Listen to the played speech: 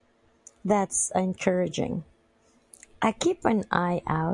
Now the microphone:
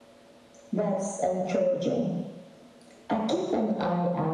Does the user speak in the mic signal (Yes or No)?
No